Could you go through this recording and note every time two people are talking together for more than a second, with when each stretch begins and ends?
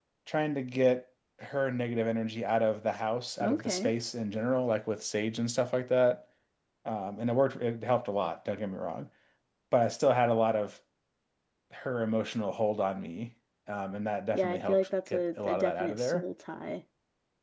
14.3-16.2

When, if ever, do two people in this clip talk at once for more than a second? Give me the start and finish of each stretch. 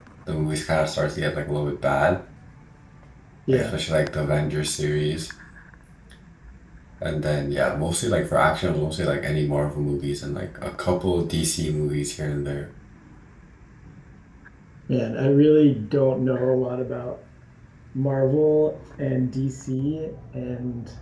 none

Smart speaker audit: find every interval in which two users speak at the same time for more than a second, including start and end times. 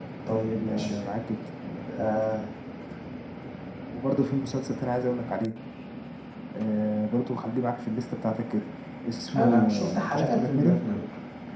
9.4-10.8

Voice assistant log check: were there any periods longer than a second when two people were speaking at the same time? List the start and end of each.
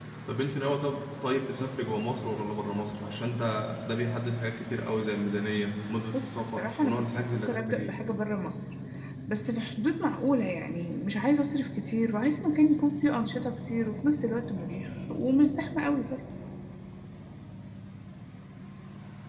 6.1-8.0

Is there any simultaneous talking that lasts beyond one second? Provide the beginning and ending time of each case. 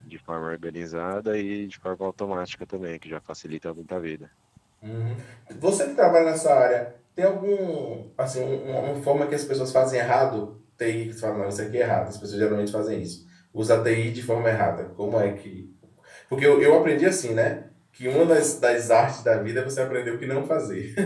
none

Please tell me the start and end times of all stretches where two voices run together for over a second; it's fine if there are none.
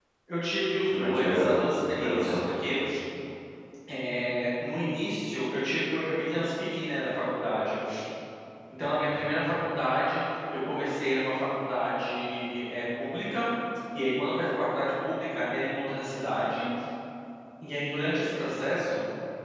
0.9-2.4

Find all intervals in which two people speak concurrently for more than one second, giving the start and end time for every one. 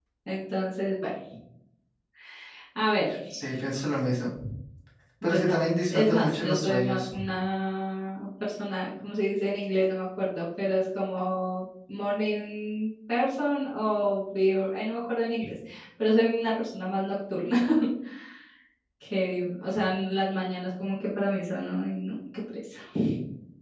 5.2-7.1

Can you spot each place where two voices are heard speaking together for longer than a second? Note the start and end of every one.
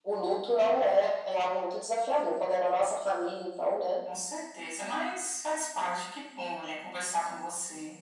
none

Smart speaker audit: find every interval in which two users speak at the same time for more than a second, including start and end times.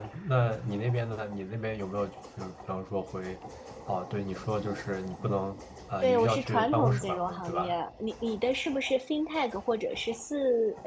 6.0-7.8

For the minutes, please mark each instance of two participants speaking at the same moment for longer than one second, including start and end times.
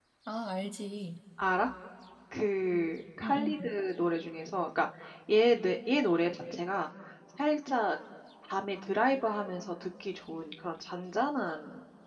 none

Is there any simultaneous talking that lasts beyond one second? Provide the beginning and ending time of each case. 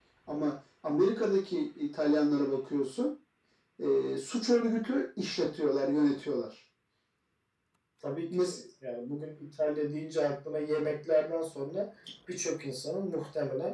none

